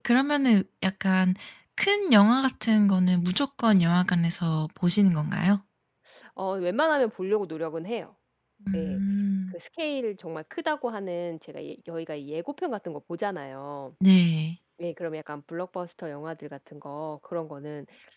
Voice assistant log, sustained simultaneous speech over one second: none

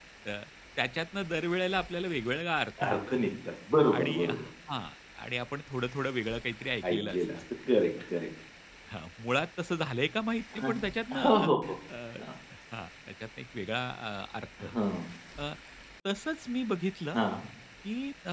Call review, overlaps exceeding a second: none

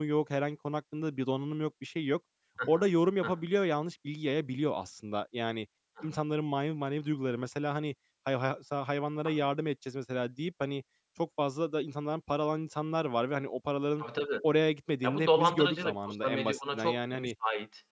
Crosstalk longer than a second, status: present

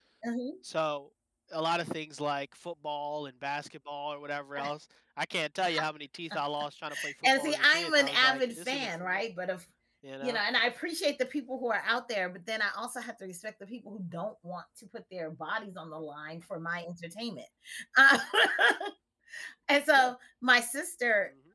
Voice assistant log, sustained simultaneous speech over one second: present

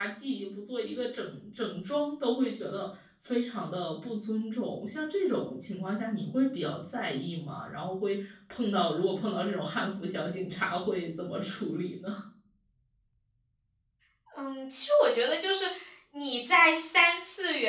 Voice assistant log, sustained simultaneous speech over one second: none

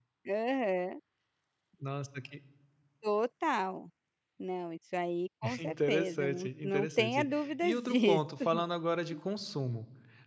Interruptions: present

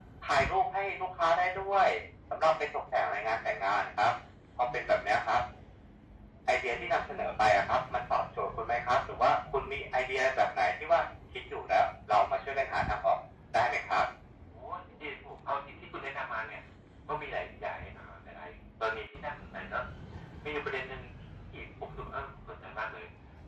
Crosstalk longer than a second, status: none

